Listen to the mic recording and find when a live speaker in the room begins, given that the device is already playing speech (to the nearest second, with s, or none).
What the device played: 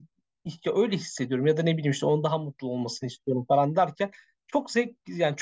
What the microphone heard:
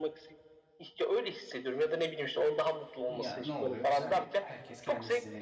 3 s